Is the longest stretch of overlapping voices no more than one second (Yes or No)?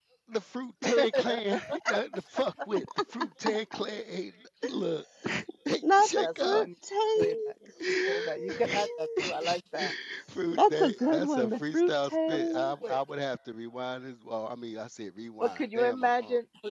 No